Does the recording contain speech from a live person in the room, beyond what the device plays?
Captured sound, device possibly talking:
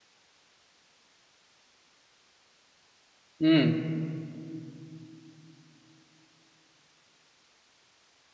Yes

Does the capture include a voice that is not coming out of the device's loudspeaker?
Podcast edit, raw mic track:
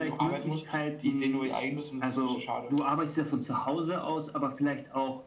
No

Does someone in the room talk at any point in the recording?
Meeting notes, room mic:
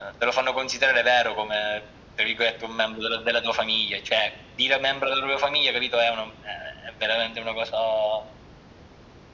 No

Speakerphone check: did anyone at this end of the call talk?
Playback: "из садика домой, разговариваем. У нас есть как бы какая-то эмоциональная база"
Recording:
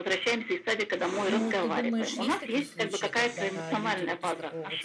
Yes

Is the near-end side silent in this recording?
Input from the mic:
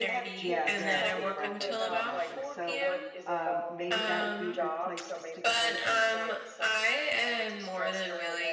No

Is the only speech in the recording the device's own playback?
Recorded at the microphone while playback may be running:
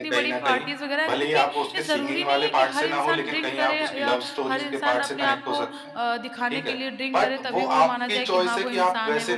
No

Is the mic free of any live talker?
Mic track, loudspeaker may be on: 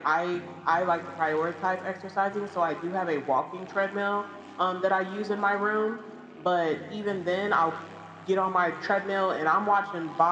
Yes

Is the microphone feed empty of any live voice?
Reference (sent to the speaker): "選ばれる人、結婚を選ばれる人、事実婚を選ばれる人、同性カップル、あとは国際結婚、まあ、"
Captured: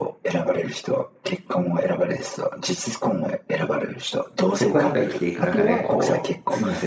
No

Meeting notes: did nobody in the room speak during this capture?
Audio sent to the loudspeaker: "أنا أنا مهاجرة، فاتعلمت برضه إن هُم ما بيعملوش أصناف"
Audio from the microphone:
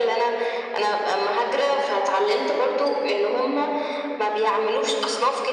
Yes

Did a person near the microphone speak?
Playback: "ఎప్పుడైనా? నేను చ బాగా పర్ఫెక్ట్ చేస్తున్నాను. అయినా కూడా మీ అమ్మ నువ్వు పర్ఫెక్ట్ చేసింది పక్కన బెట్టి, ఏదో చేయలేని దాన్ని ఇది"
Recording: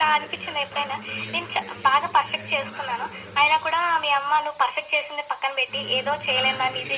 Yes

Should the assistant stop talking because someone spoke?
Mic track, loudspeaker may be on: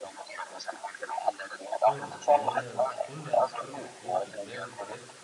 Yes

